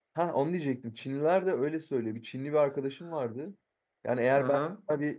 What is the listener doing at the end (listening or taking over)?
listening